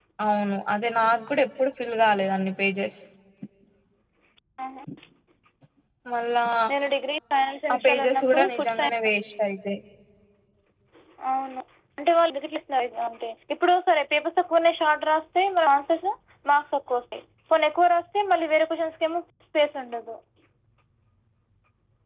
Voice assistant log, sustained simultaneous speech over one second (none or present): present